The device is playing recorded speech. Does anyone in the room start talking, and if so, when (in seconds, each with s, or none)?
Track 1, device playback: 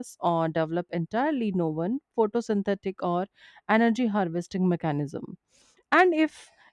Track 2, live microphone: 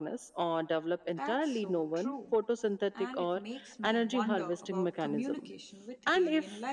1.1 s